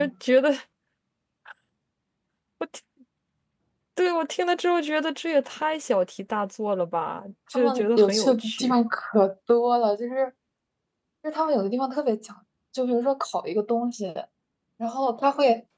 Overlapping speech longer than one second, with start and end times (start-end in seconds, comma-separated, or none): 7.5-8.8